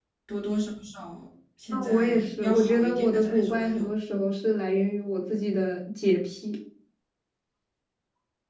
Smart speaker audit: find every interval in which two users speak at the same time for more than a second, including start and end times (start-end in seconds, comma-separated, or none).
1.7-3.9